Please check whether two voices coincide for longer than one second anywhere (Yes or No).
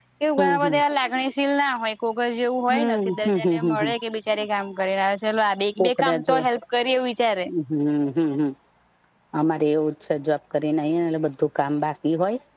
Yes